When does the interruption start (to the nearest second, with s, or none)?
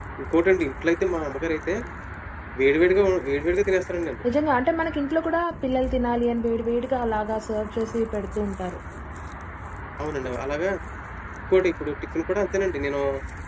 none